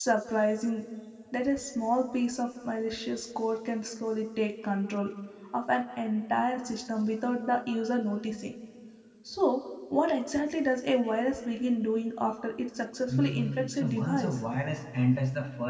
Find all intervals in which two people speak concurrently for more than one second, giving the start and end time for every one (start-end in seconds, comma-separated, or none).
13.1-14.4